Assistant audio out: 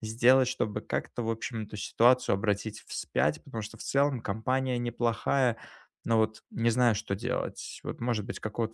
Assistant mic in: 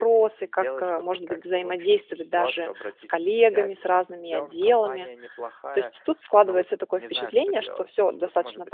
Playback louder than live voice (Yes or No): No